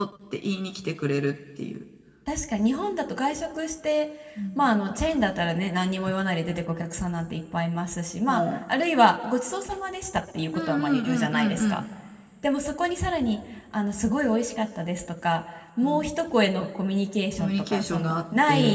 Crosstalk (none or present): present